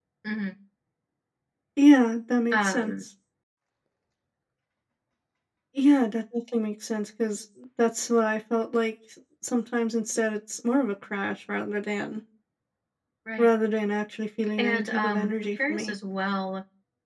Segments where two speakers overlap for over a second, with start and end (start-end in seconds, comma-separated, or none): 14.6-15.9